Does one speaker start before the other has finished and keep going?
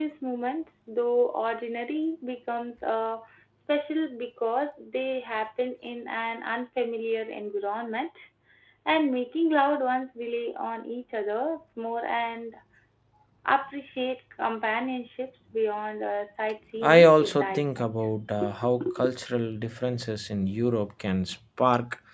Yes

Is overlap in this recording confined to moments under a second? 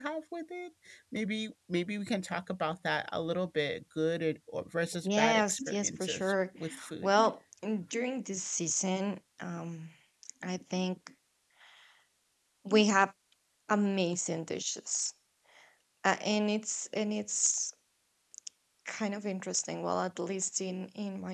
No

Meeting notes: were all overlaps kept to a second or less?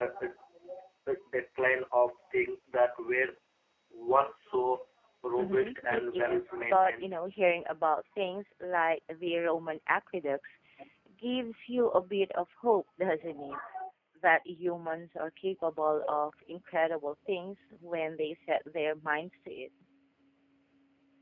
No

